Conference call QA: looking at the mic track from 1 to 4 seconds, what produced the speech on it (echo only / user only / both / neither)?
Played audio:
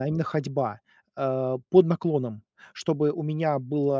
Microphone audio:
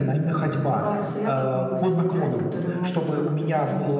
both